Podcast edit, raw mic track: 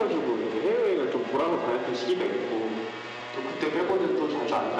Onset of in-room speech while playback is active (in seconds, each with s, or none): none